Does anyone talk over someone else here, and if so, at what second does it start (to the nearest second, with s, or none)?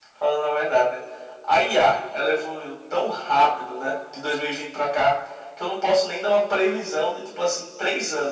none